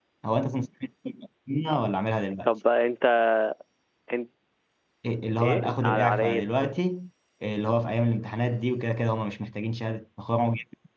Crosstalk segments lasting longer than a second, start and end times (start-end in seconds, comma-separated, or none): 5.4-6.7